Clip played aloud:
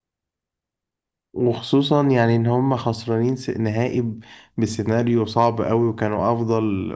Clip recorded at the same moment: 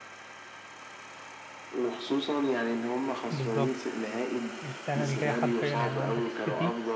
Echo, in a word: present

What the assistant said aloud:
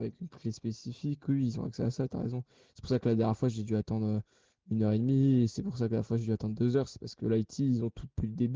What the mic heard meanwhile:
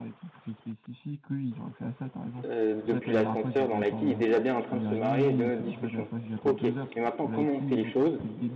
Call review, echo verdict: present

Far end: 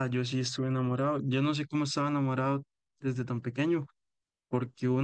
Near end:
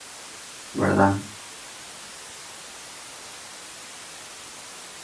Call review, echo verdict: none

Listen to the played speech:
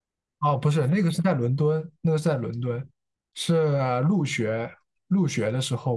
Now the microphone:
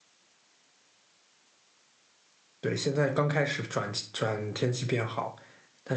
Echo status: none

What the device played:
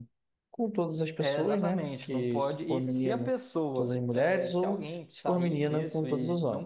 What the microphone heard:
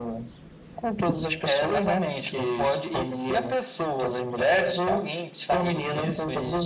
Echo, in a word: present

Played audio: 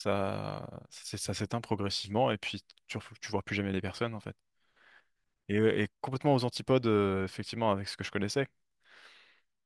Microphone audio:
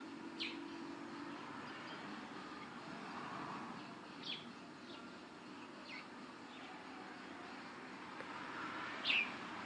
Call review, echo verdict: none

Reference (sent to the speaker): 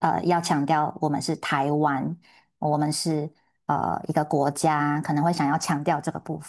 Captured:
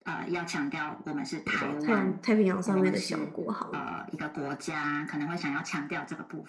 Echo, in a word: present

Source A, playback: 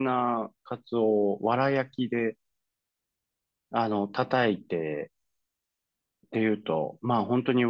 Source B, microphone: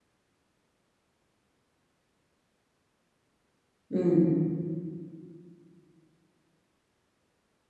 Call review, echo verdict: none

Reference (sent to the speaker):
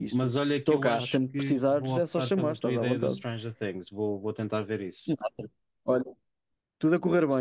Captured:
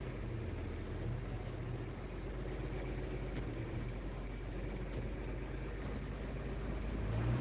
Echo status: none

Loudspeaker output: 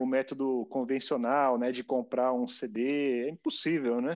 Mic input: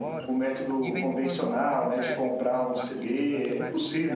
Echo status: present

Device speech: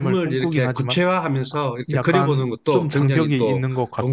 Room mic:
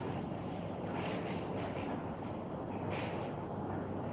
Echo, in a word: none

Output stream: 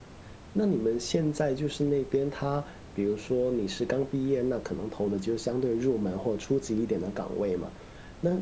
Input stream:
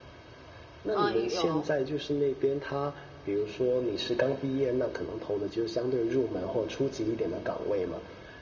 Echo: present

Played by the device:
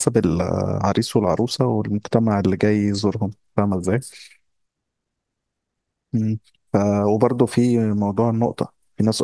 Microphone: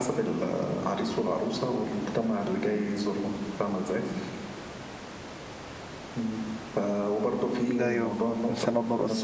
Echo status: present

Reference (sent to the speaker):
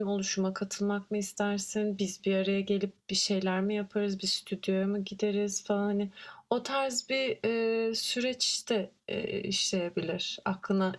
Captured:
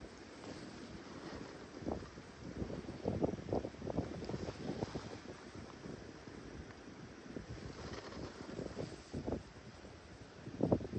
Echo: none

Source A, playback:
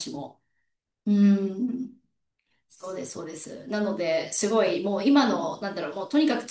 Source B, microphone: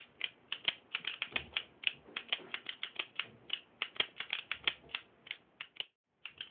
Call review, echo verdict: none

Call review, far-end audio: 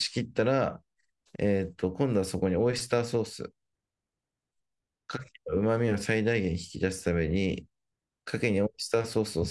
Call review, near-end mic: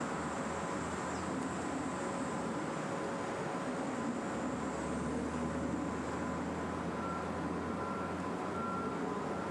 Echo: none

